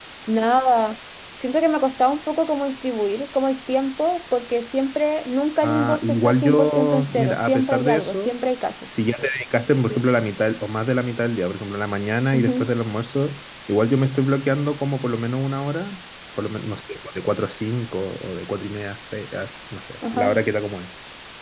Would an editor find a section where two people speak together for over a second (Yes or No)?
Yes